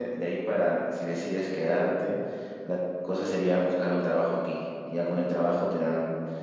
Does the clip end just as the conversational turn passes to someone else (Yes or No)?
No